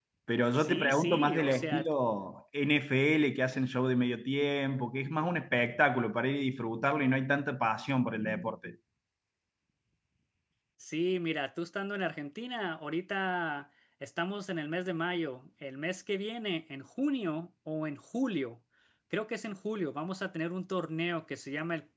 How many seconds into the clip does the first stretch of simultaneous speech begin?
1 s

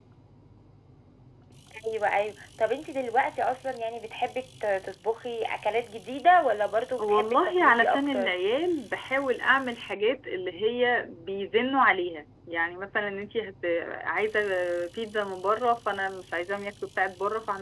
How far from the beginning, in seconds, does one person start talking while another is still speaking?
7 s

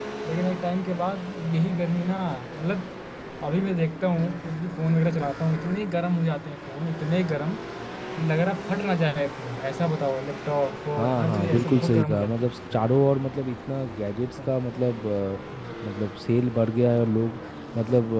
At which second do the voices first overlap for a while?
11 s

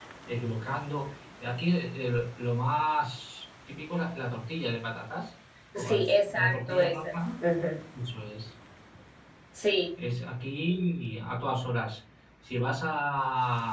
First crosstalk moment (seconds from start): 6 s

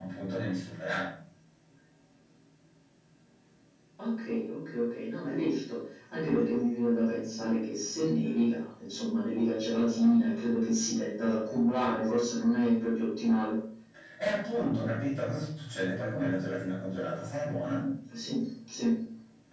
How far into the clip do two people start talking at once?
none

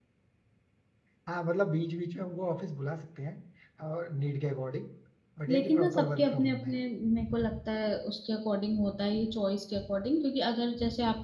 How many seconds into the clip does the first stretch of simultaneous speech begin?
5 s

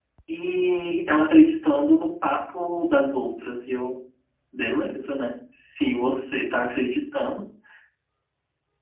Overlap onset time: none

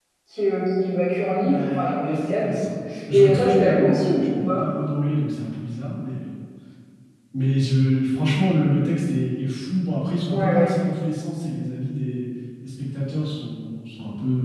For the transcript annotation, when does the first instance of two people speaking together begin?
1 s

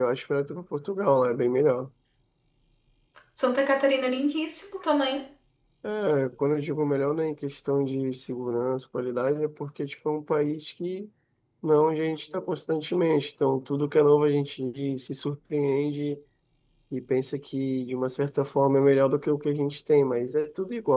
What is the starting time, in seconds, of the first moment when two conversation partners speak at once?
none

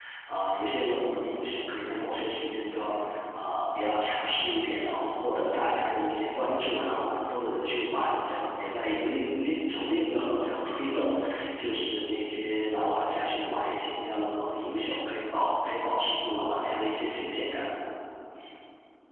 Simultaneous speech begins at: none

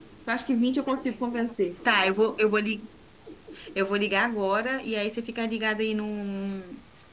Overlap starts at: none

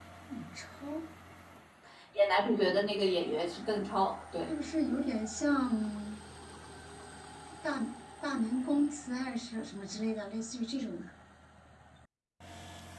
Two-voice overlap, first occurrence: none

